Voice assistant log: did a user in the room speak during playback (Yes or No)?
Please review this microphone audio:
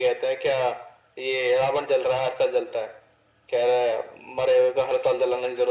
No